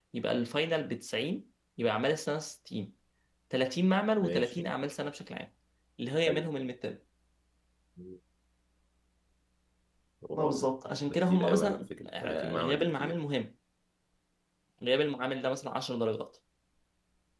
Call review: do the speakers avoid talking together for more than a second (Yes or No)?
No